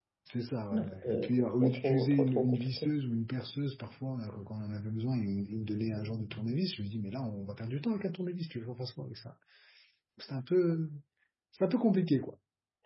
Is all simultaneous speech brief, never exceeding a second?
No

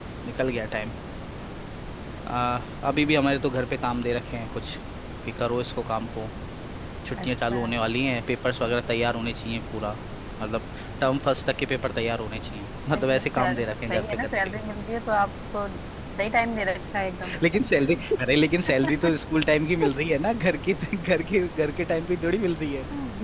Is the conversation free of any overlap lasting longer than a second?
No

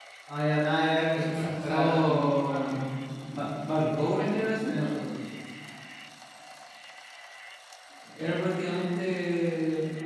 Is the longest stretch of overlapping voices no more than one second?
No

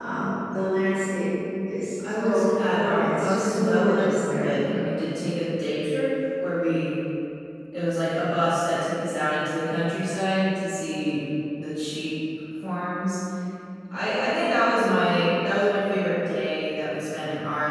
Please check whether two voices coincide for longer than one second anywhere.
Yes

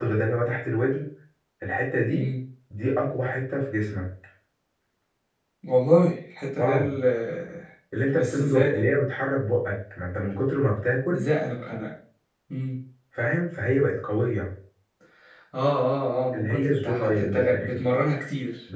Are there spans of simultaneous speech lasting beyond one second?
Yes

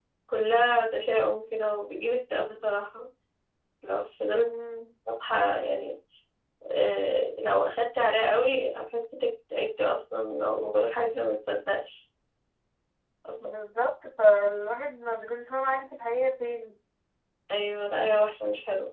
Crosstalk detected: No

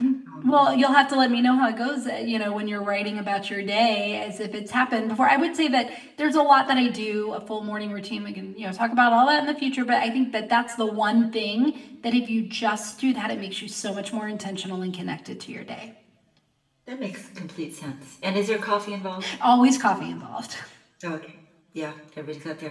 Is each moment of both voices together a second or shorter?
Yes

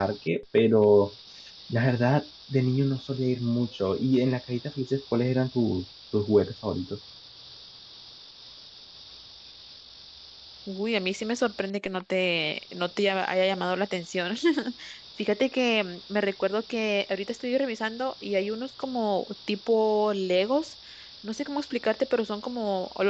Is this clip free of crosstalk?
Yes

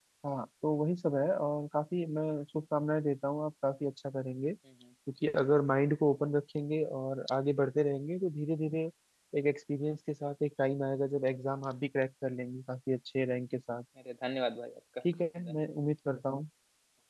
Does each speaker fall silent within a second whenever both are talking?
Yes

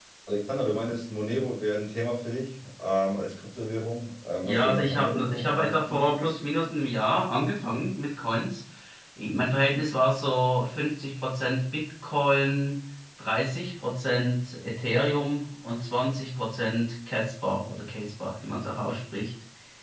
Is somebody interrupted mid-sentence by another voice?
Yes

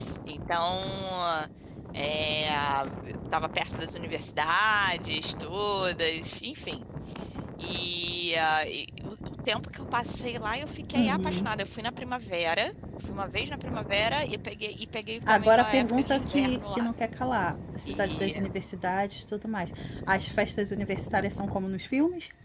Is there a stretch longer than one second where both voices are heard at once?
Yes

